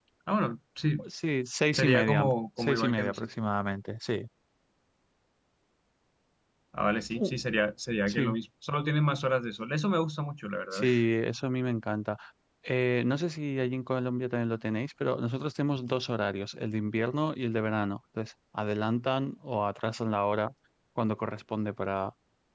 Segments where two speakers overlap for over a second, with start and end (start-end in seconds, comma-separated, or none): 1.7-3.3